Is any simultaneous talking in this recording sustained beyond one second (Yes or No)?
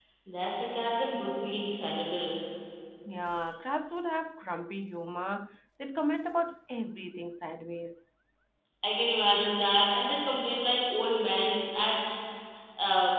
No